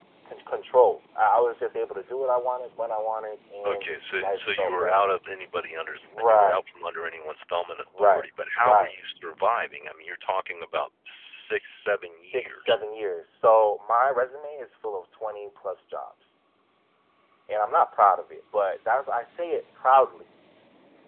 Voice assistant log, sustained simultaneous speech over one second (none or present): present